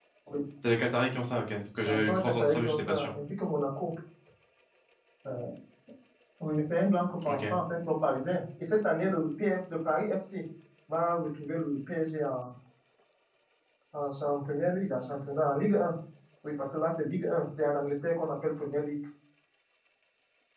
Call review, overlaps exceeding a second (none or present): present